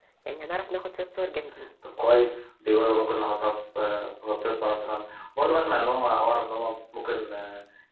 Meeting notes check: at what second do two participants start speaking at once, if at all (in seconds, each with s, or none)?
none